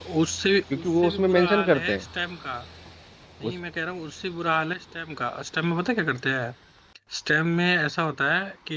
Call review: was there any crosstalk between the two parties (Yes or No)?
Yes